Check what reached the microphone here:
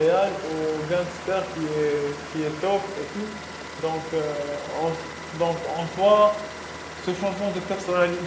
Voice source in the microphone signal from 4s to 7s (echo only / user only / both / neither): user only